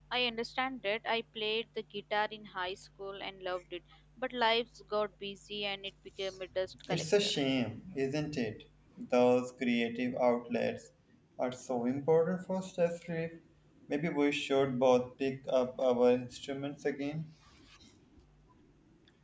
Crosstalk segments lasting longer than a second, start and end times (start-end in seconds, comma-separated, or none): none